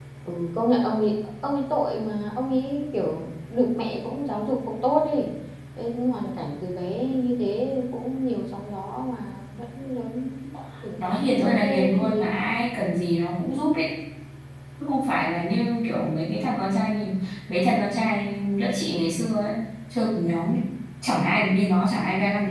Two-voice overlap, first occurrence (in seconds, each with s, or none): 11.0 s